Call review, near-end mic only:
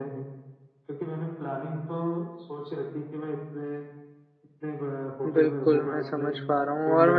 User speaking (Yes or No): Yes